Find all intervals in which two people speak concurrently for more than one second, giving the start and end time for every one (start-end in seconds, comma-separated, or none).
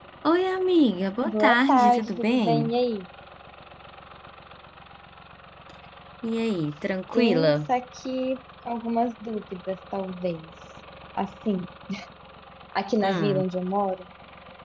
1.2-2.7